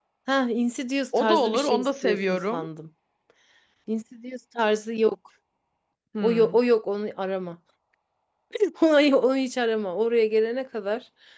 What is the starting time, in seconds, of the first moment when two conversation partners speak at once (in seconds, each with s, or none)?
1.2 s